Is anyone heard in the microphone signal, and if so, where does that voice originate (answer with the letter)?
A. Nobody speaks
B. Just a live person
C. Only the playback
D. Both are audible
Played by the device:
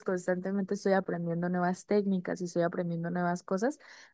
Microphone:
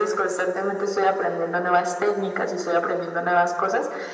C